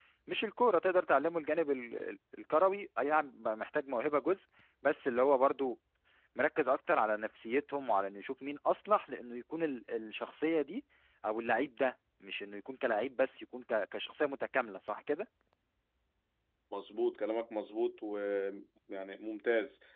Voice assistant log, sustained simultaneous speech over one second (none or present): none